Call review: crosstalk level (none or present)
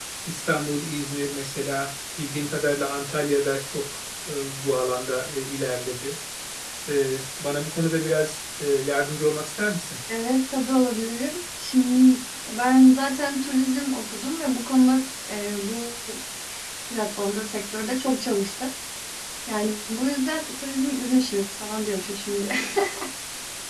none